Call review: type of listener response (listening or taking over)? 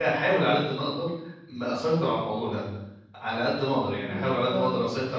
listening